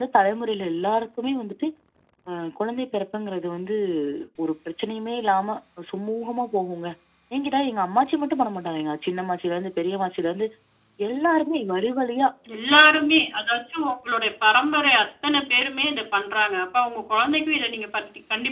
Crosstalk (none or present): none